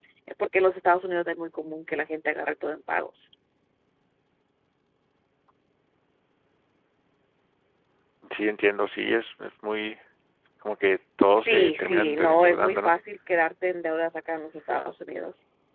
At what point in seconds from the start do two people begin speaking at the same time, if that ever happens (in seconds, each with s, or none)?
11.4 s